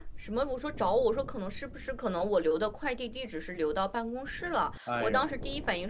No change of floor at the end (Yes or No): Yes